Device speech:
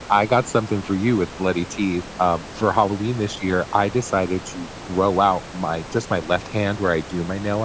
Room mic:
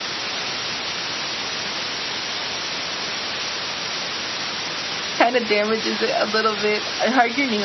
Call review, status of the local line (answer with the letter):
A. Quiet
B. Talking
B